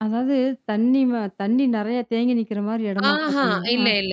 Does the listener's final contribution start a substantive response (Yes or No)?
Yes